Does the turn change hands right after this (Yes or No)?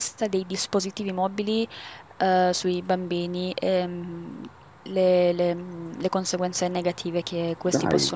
No